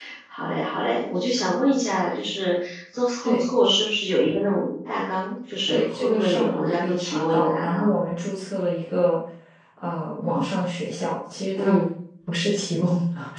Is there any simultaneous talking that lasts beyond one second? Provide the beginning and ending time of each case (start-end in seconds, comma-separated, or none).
5.7-7.9